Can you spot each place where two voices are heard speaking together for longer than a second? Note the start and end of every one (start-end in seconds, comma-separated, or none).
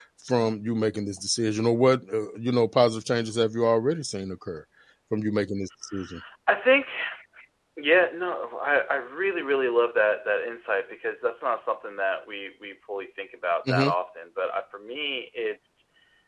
none